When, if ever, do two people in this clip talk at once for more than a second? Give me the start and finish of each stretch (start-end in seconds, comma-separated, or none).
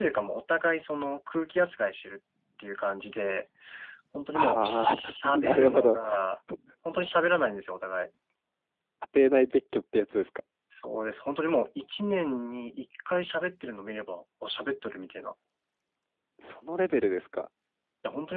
4.3-6.0